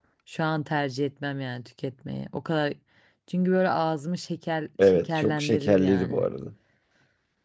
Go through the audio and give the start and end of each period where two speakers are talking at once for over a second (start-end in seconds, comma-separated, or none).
4.8-6.3